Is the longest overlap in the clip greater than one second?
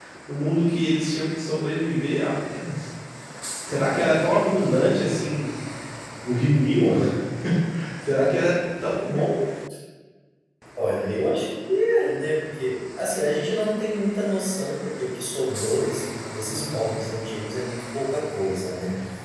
No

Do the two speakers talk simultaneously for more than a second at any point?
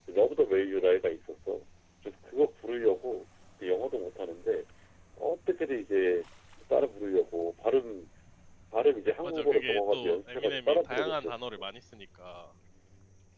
Yes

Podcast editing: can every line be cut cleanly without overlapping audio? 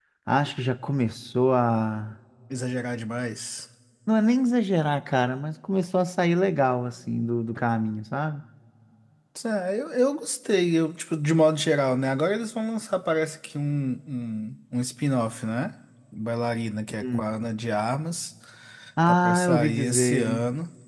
No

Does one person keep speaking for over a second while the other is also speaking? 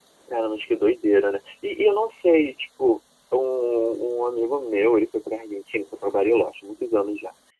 No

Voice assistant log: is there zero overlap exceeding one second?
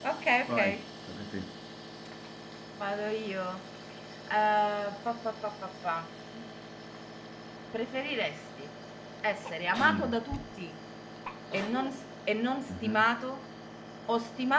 Yes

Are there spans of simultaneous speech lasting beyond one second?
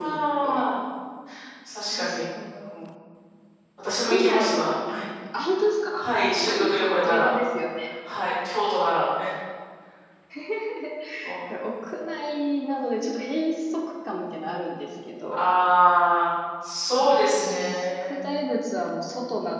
Yes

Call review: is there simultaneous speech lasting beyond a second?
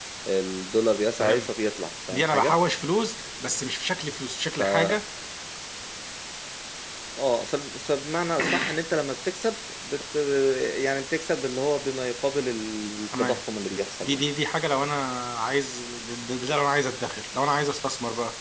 No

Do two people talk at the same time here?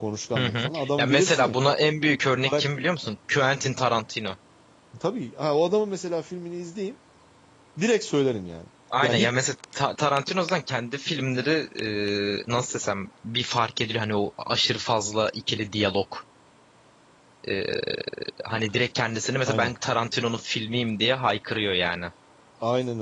Yes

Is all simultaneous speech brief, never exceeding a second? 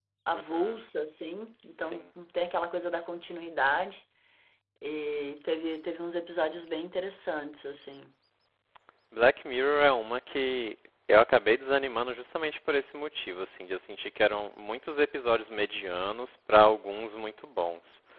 Yes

